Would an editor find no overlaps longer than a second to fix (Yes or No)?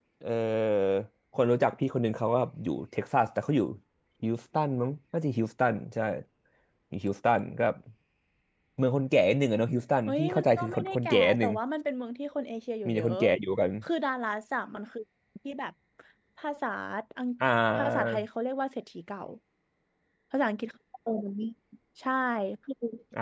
No